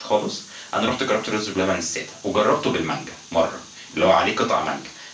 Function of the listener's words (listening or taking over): listening